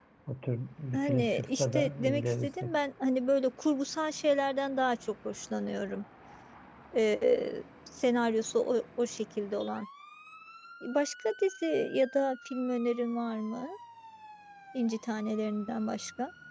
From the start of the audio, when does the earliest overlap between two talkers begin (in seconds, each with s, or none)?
0.9 s